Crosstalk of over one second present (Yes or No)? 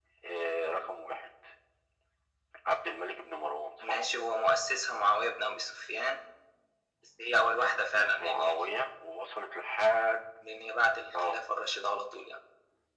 No